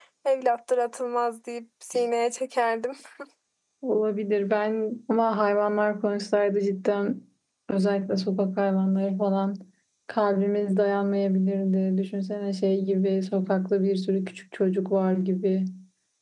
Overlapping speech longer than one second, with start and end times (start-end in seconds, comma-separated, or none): none